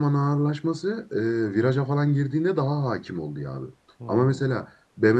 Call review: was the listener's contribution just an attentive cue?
Yes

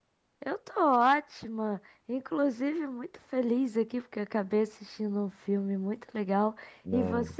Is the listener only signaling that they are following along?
Yes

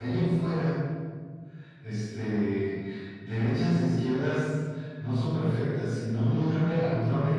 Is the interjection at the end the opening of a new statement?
No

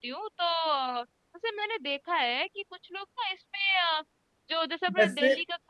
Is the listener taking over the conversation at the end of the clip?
No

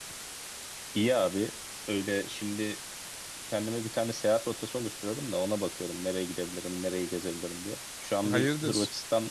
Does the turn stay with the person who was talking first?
Yes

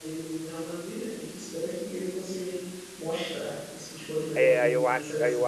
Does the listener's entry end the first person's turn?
Yes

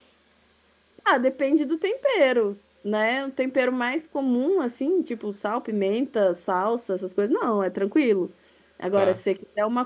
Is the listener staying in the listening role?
Yes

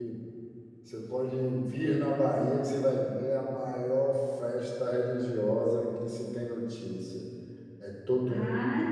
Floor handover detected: Yes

